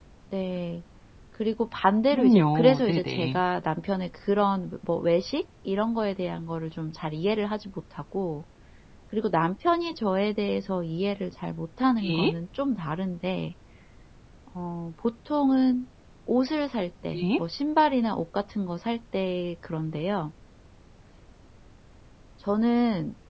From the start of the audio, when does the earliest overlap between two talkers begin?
2 s

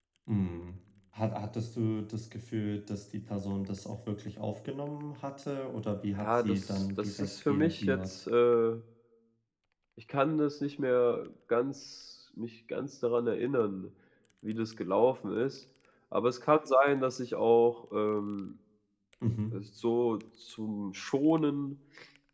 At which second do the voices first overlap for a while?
6 s

